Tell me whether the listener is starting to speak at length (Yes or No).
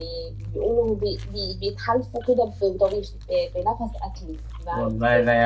Yes